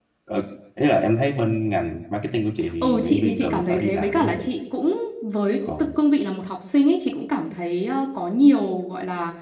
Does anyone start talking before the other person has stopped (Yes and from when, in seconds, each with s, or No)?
Yes, from 2.8 s